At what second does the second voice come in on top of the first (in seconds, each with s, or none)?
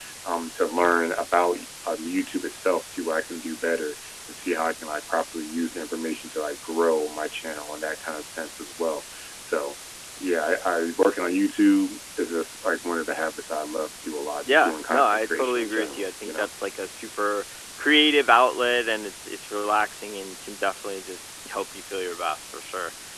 14.5 s